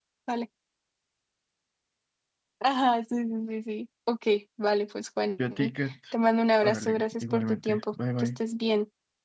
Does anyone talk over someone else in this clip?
Yes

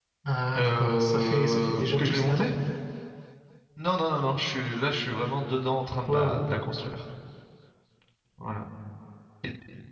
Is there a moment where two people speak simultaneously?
Yes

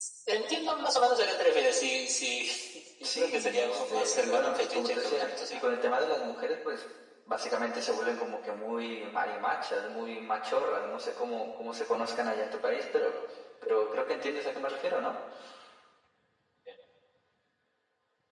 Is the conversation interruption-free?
No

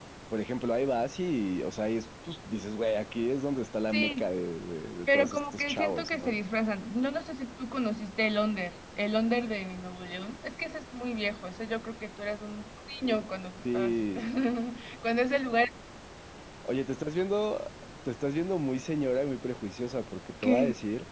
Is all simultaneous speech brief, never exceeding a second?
No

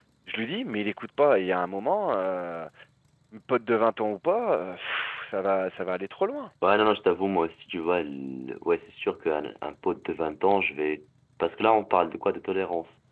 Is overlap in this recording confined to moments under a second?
Yes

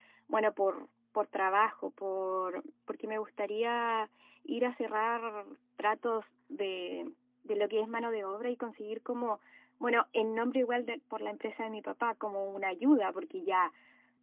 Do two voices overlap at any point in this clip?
No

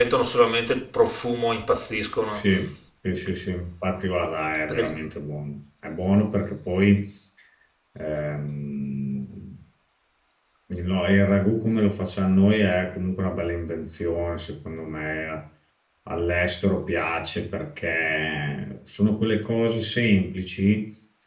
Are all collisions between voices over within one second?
Yes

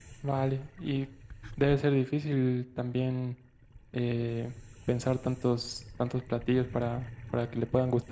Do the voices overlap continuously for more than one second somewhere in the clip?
No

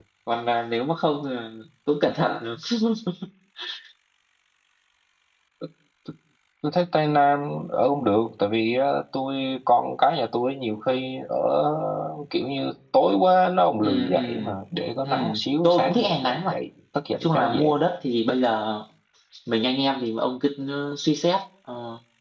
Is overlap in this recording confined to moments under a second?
No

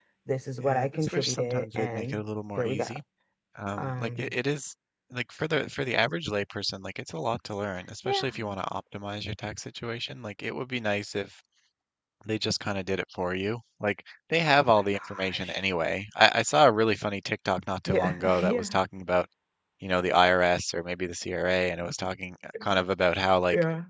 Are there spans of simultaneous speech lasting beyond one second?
Yes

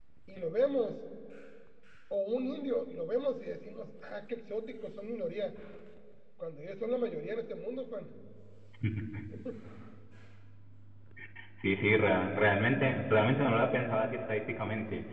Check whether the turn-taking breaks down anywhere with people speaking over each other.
No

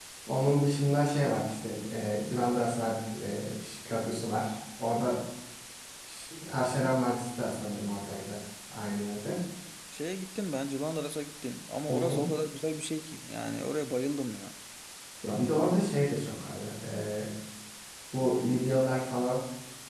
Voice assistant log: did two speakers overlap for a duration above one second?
No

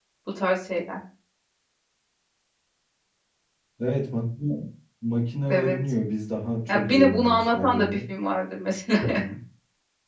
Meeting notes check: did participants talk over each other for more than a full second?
Yes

